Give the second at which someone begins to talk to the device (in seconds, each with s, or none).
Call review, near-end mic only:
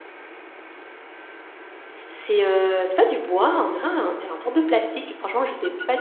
2.1 s